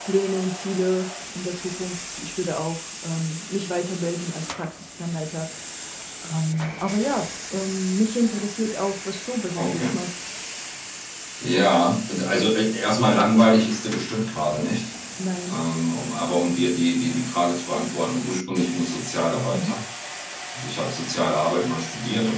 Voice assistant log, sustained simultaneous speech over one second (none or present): none